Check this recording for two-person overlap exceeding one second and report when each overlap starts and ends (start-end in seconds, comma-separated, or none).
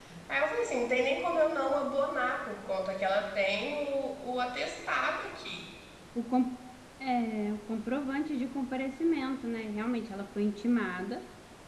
none